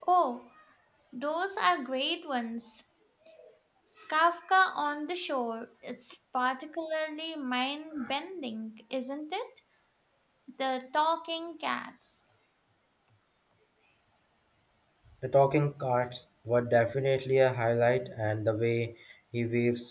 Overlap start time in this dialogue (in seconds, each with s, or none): none